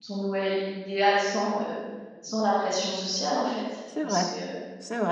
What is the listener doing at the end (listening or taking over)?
taking over